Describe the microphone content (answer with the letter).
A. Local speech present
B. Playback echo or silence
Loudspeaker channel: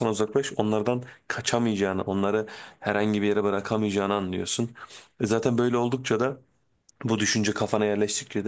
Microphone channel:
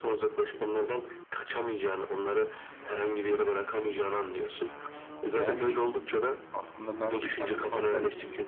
A